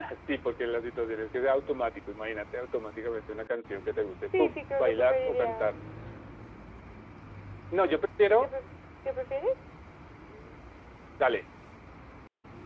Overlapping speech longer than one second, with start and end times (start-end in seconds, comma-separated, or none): 4.4-5.7